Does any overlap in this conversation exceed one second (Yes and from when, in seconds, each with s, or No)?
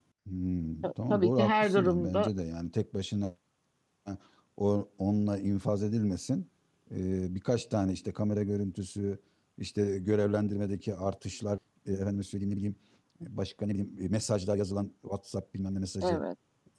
Yes, from 0.8 s